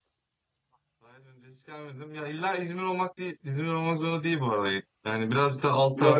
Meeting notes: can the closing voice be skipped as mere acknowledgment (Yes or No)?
No